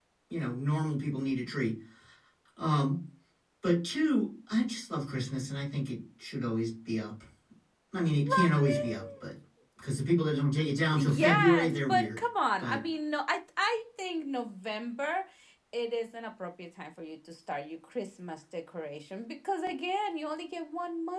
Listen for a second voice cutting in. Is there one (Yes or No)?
Yes